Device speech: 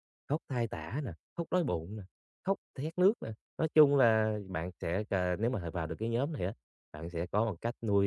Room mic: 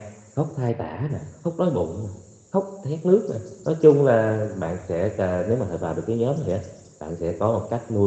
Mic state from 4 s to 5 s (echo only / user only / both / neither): echo only